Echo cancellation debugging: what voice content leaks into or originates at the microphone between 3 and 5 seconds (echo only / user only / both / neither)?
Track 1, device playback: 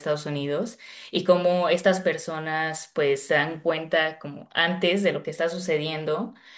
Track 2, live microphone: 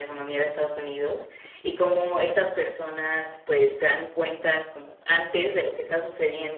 echo only